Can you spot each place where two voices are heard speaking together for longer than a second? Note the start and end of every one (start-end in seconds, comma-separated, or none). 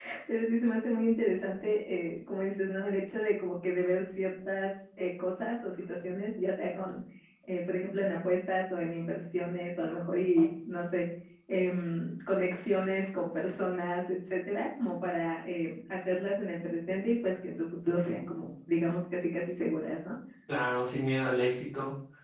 none